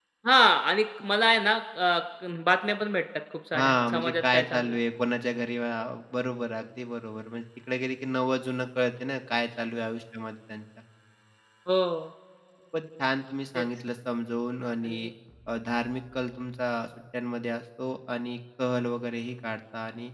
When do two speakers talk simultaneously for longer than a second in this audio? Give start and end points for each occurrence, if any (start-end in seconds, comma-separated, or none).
3.5-4.8